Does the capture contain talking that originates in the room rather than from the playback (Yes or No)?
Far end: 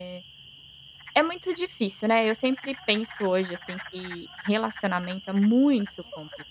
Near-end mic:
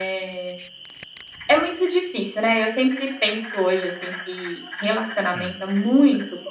Yes